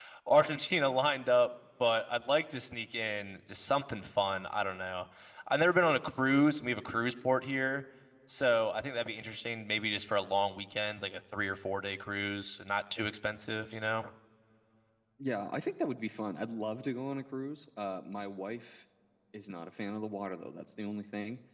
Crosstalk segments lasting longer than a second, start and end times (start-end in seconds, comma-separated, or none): none